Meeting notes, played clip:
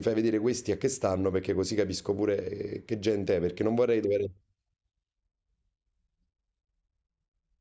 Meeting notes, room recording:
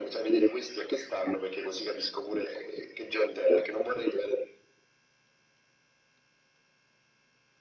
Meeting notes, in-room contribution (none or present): none